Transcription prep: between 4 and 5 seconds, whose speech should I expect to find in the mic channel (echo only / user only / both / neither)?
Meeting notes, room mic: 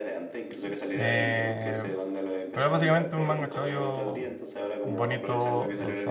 both